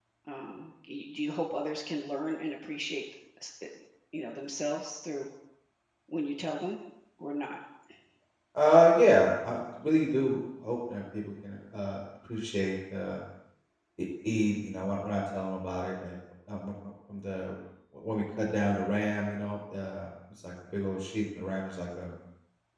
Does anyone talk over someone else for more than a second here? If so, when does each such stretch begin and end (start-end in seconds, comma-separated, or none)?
none